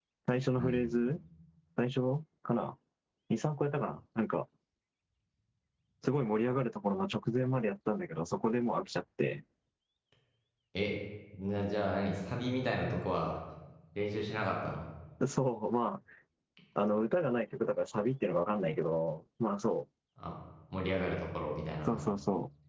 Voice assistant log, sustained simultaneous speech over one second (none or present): none